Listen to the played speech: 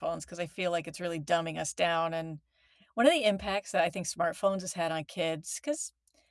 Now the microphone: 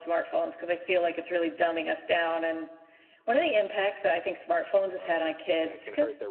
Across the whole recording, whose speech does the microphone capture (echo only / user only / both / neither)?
both